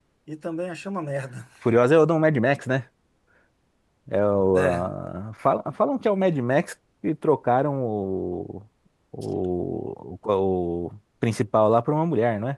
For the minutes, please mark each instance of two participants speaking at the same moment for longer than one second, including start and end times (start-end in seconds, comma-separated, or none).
none